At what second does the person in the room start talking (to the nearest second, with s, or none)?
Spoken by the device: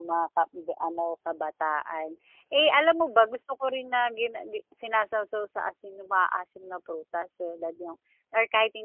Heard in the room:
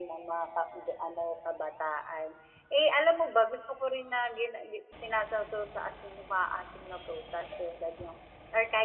none